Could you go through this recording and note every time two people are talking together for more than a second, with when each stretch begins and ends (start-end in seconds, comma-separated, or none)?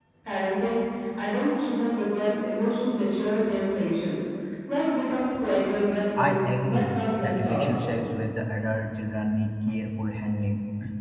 6.2-8.0